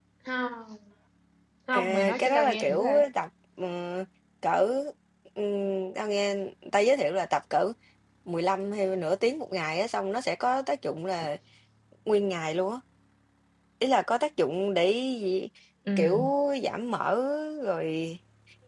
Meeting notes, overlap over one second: present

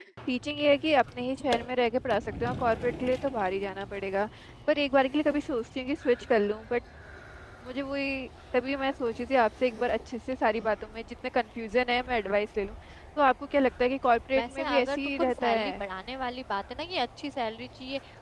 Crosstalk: present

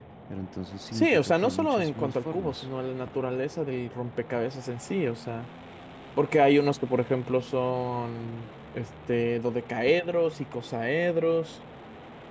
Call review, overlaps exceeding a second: present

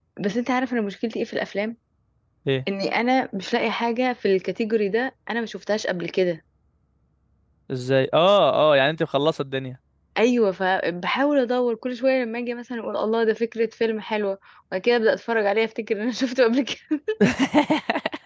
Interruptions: none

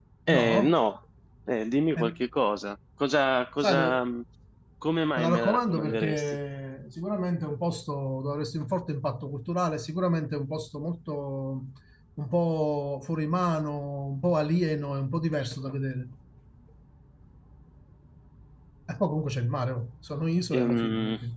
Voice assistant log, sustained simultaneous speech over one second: present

